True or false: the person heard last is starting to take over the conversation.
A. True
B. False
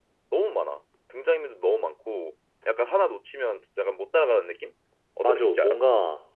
A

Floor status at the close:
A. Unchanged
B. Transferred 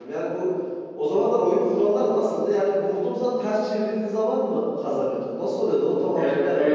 B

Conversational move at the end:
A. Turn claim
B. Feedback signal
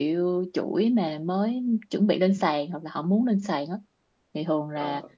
B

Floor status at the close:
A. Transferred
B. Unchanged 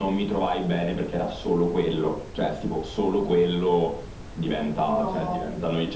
B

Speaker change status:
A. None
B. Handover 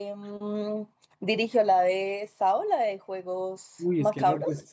B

